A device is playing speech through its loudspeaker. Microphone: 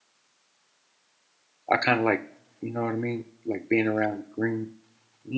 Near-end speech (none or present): present